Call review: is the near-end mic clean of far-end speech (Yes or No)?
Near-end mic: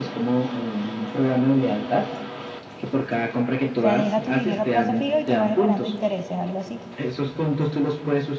No